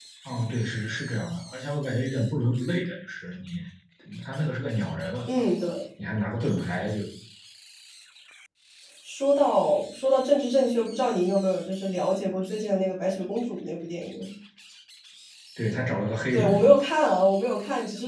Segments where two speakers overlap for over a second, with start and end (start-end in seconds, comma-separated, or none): none